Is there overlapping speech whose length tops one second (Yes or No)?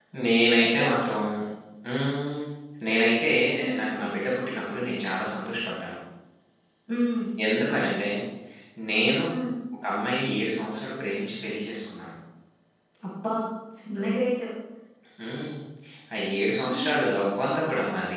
No